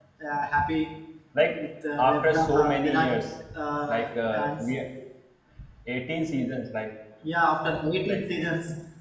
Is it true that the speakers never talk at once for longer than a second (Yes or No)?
No